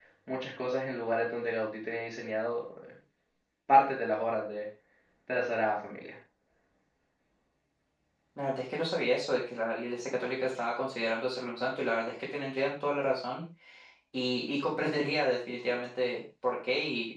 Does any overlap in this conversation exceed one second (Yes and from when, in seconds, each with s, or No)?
No